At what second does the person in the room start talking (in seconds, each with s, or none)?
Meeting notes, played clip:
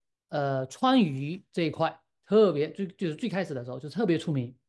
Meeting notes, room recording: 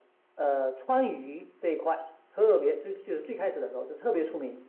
none